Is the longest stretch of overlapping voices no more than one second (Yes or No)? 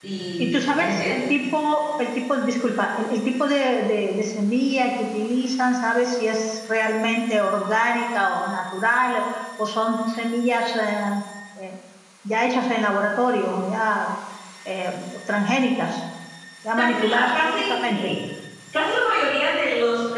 No